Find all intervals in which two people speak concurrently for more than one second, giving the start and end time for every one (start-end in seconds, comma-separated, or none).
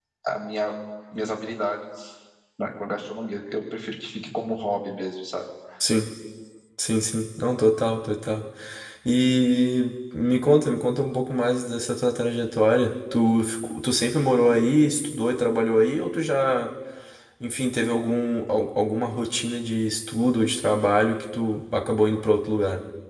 none